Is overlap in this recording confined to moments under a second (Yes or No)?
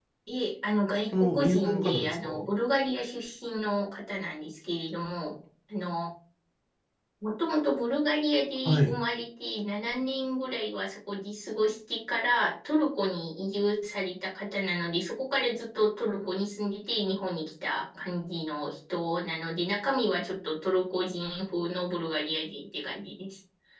No